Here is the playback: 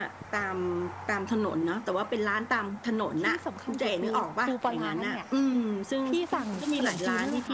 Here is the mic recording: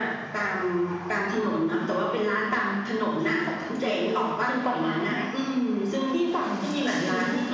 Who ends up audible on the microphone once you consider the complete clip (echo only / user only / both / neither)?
echo only